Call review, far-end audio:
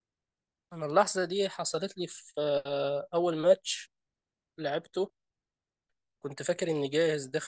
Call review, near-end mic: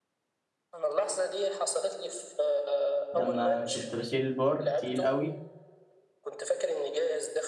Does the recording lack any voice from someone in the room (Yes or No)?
No